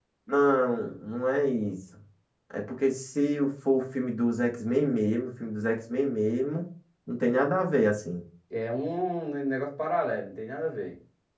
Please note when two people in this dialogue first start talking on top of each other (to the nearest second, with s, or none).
none